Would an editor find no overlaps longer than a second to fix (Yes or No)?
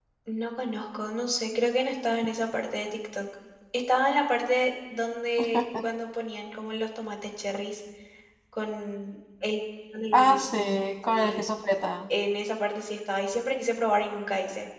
Yes